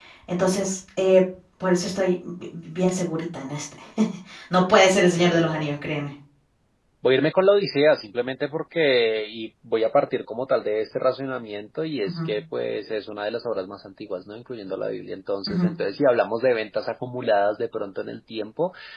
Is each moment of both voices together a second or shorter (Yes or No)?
Yes